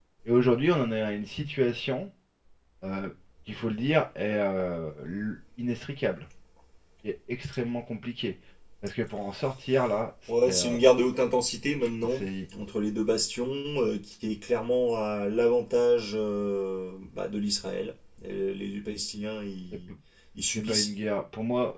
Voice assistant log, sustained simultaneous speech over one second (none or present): none